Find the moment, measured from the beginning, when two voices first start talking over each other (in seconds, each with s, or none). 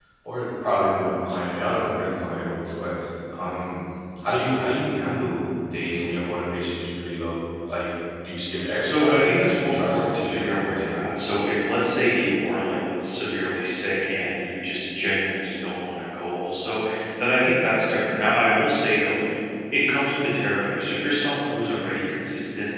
8.8 s